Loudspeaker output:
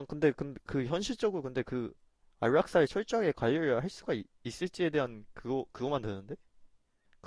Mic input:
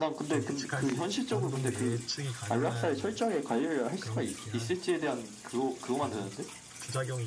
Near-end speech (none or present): present